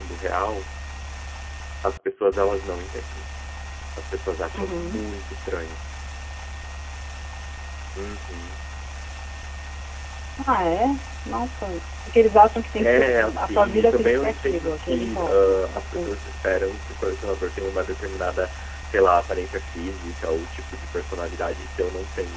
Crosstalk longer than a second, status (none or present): present